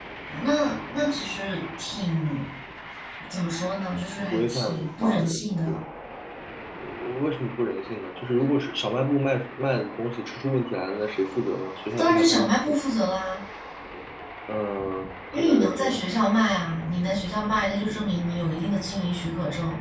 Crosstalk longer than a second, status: present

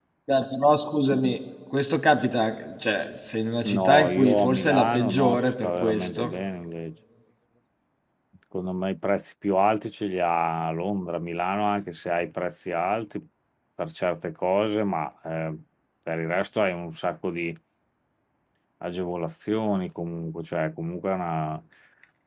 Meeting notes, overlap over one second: present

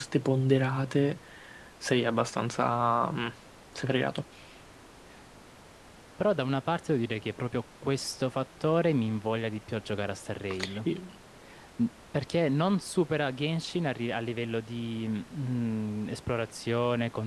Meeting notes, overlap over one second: none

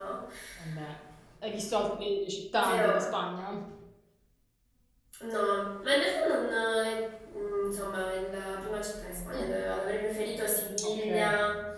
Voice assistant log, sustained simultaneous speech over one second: none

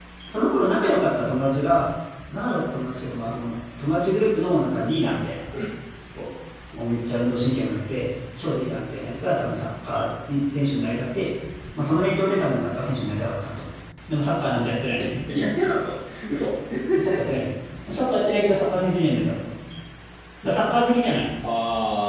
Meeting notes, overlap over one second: none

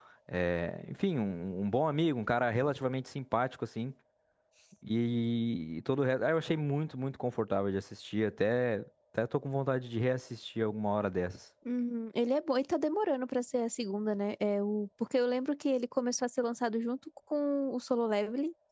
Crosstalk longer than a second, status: none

